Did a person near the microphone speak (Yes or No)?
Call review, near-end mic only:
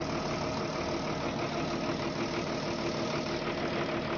No